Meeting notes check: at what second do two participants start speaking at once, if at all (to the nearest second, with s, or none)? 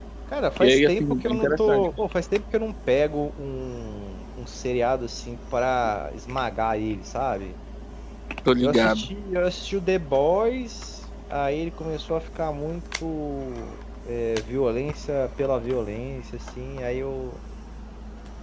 1 s